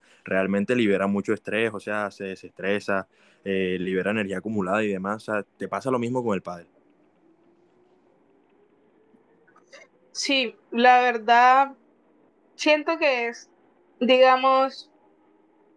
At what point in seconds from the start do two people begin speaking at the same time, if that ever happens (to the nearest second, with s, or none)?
none